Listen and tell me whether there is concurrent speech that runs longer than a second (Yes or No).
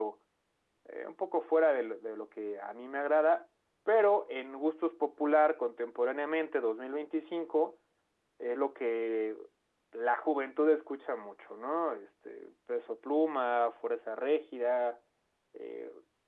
No